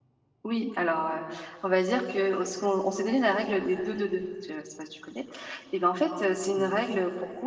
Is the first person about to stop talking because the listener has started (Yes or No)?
No